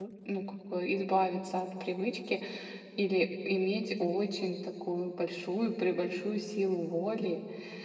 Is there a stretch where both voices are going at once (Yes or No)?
No